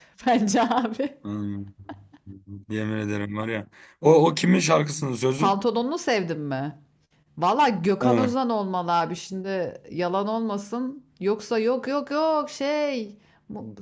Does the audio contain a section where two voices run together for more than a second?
No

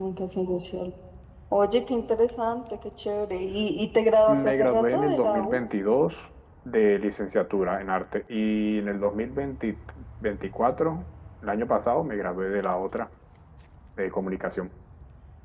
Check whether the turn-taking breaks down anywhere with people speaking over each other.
Yes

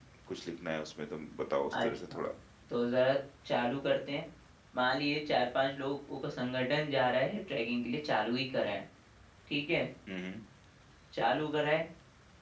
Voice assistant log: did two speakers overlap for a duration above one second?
No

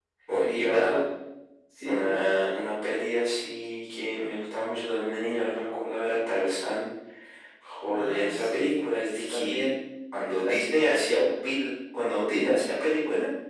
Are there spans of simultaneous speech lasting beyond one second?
Yes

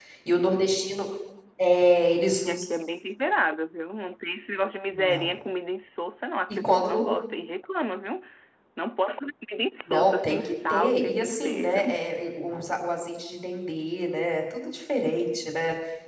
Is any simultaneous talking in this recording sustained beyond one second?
Yes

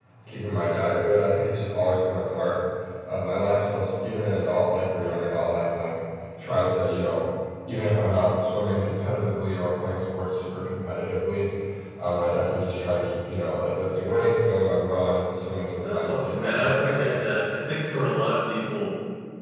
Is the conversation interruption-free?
No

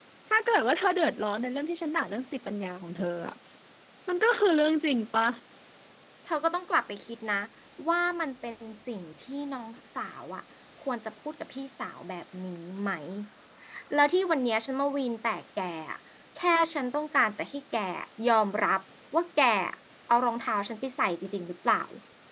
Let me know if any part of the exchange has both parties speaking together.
No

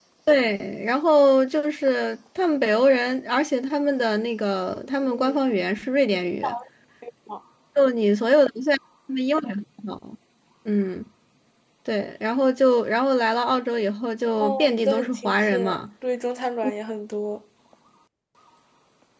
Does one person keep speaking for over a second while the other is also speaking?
Yes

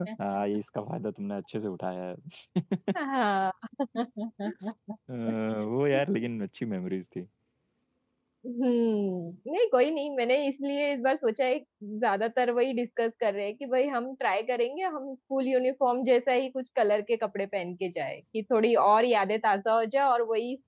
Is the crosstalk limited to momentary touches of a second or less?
Yes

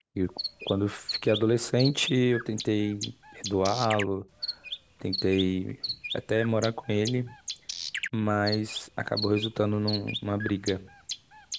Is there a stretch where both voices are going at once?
No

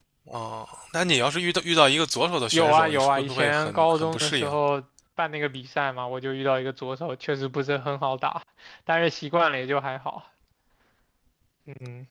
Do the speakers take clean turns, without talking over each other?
No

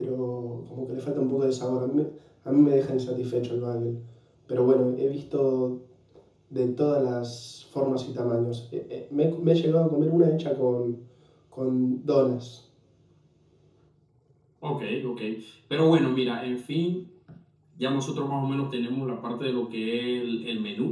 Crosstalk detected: No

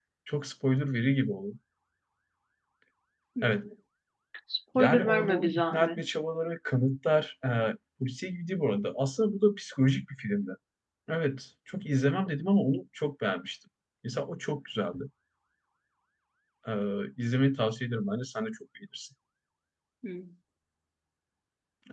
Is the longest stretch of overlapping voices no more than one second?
No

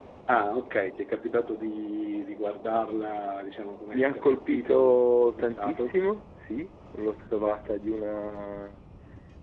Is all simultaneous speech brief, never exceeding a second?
No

